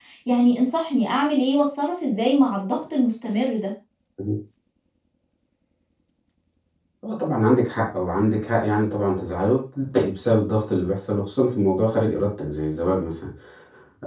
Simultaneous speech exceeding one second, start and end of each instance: none

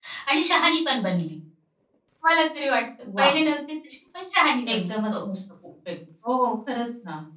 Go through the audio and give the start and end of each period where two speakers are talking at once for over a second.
none

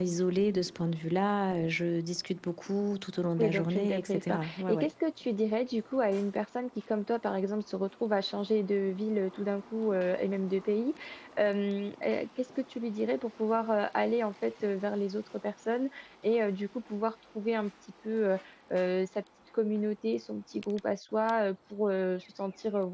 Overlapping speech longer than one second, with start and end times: 3.4-4.9

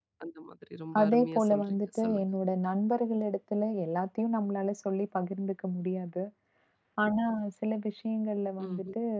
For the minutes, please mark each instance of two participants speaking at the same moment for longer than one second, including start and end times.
1.0-2.3

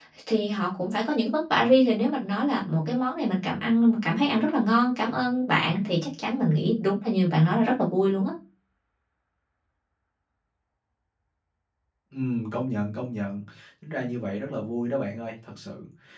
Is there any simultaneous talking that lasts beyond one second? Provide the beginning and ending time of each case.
none

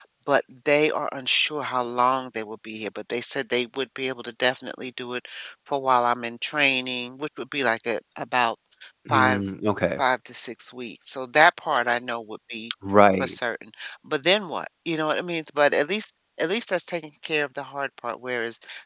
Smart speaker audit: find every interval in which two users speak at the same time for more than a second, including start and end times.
none

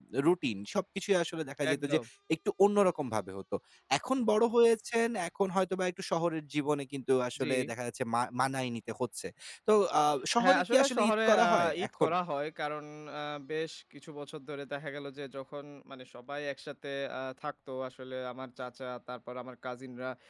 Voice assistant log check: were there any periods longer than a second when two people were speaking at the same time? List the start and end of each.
10.4-12.1

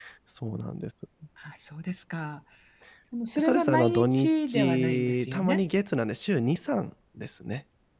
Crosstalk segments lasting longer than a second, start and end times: 3.4-5.6

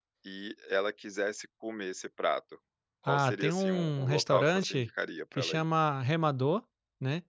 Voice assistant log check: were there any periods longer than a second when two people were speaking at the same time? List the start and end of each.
3.1-4.9

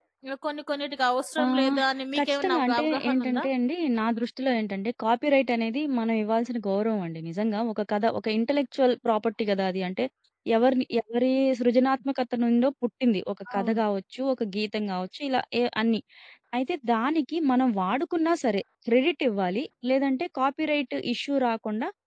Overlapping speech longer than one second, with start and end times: 2.2-3.4

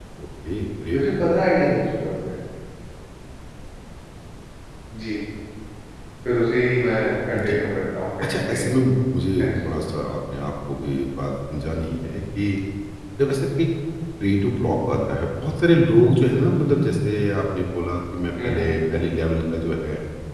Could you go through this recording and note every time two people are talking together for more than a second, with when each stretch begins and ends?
none

